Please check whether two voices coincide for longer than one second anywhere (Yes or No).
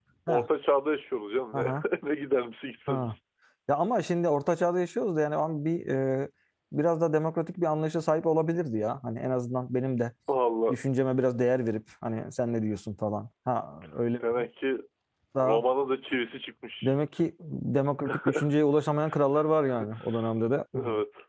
No